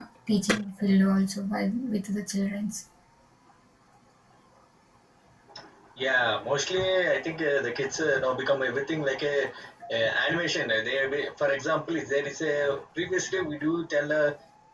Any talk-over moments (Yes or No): No